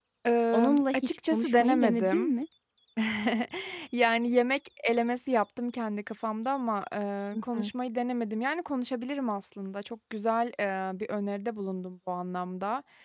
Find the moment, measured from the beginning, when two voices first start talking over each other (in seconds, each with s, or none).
0.5 s